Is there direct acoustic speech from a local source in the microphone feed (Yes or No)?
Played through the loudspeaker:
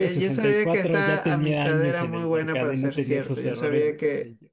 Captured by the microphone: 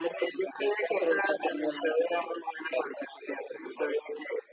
No